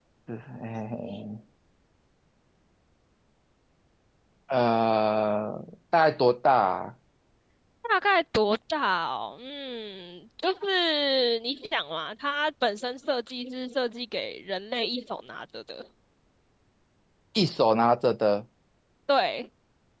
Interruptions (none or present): none